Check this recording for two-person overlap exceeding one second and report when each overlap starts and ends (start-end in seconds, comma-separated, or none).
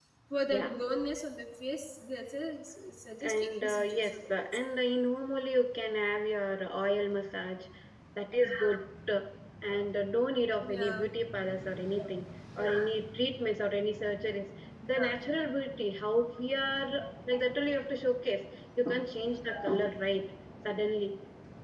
3.2-4.6